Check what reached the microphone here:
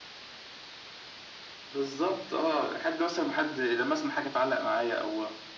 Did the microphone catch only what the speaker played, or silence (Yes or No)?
Yes